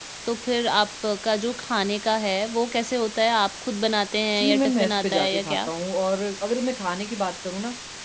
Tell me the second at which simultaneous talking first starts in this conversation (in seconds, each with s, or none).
4.4 s